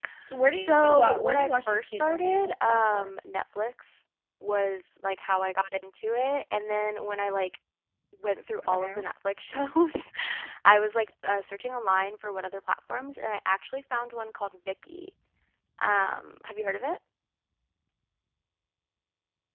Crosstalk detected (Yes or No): Yes